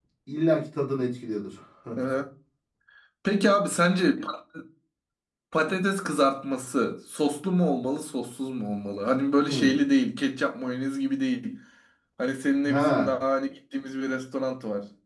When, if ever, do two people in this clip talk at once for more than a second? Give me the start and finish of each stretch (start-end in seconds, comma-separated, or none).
none